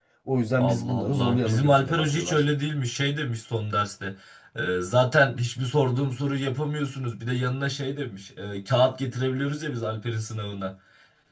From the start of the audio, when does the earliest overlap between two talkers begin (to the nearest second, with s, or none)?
1 s